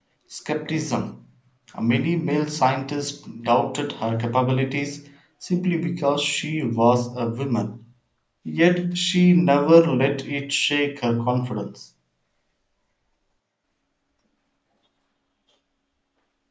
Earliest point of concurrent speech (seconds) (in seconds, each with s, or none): none